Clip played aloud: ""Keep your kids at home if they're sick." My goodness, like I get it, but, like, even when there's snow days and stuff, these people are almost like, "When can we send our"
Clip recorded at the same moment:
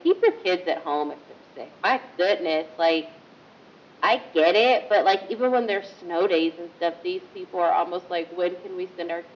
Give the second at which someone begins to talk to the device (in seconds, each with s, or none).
none